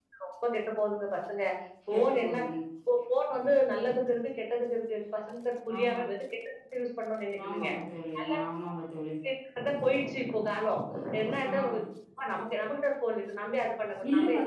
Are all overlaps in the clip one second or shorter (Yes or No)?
Yes